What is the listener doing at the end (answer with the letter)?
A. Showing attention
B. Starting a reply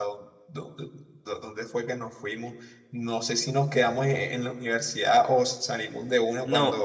B